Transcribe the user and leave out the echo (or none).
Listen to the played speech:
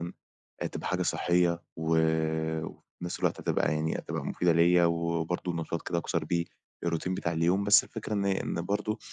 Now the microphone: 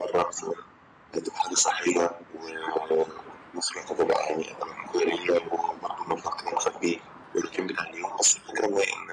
none